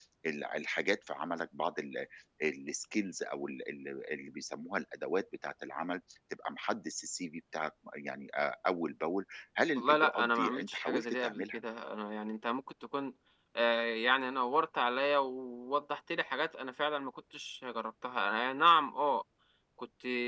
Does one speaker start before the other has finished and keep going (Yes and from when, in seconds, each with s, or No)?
Yes, from 9.8 s